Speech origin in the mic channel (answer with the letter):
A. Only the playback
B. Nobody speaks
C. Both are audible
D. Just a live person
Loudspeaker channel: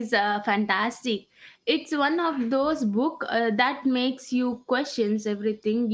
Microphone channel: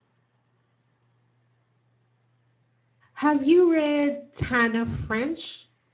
D